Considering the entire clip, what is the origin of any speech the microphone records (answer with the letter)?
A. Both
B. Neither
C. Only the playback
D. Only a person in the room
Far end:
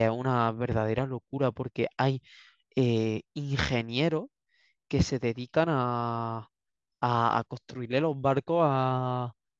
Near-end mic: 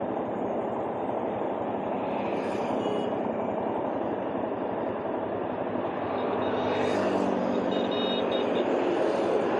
B